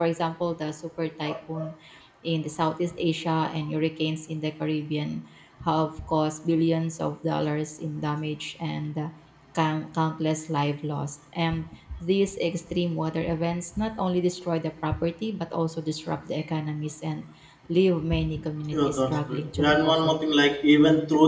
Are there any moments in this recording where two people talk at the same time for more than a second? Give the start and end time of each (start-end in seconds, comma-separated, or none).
18.7-20.1